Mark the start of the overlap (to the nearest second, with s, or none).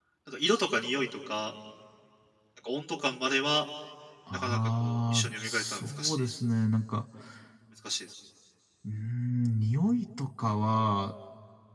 4 s